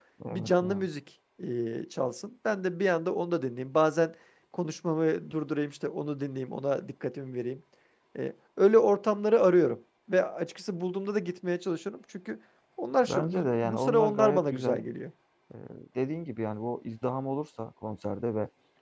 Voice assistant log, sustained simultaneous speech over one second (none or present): present